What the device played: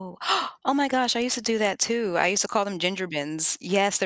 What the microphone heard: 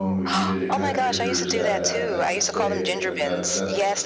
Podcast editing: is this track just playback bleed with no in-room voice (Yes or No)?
No